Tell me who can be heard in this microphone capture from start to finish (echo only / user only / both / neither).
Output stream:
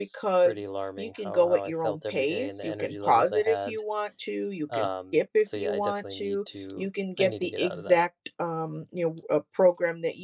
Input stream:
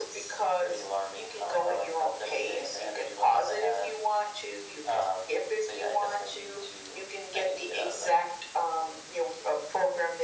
echo only